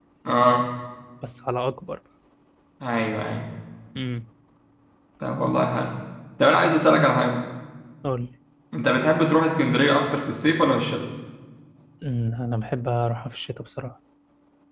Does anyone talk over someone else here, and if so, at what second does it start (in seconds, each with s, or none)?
none